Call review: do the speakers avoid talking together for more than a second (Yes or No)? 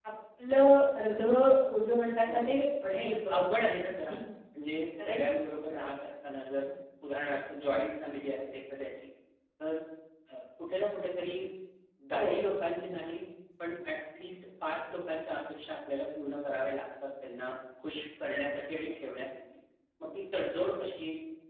Yes